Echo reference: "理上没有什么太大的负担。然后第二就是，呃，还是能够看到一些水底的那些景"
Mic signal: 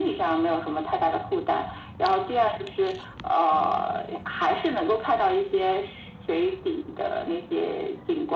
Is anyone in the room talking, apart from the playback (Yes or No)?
No